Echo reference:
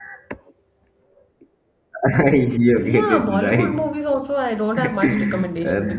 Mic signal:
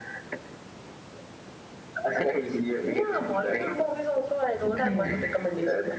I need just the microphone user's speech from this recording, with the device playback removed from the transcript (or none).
Okay.